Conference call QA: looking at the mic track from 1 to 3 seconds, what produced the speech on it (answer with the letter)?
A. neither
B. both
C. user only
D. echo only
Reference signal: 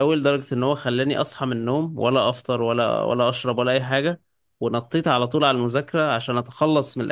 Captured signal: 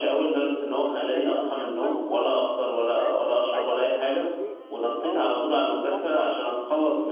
B